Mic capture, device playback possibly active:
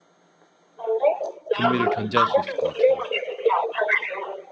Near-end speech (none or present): present